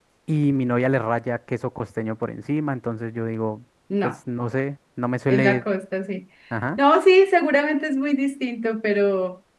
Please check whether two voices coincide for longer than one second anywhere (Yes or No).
No